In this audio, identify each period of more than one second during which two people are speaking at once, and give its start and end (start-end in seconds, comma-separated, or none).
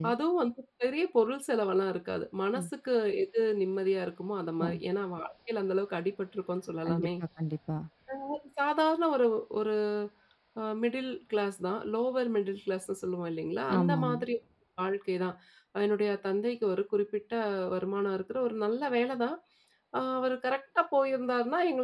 none